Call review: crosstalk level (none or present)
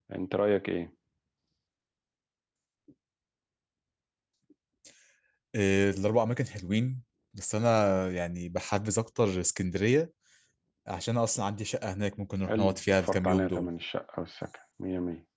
present